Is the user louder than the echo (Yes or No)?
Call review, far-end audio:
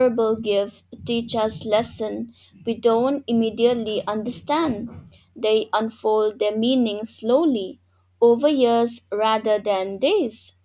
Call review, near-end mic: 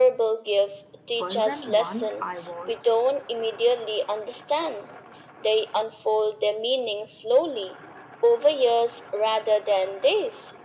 No